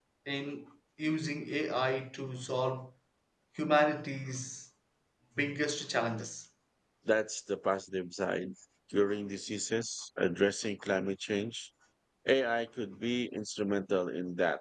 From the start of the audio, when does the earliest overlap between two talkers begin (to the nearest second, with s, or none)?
none